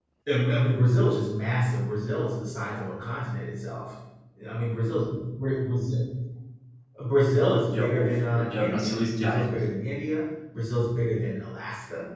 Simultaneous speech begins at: 8 s

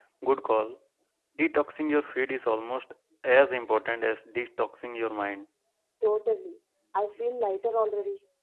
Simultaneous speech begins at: none

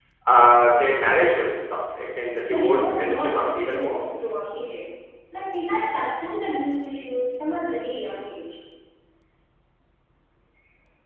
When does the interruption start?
2 s

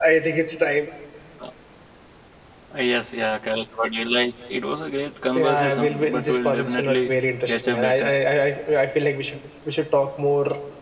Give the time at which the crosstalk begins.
5 s

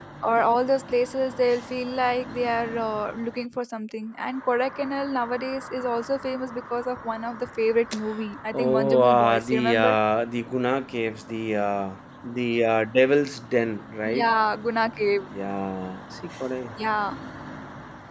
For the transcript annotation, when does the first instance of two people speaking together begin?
9 s

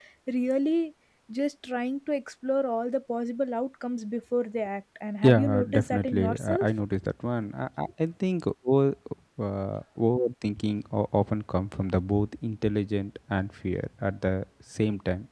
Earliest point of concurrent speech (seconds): 5 s

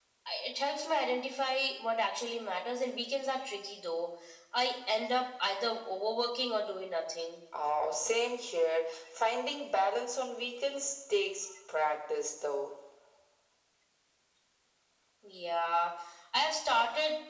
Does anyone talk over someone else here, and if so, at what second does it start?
none

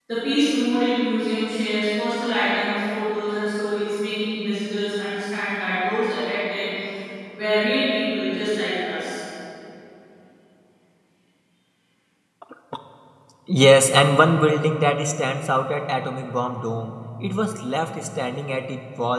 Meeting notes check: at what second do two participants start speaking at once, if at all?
none

